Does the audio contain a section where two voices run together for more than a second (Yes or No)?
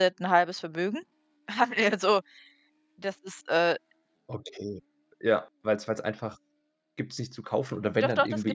No